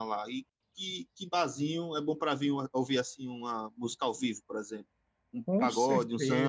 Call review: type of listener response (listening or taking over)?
taking over